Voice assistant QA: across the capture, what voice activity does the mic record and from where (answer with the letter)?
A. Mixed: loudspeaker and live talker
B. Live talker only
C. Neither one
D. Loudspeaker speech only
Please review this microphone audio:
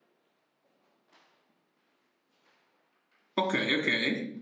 B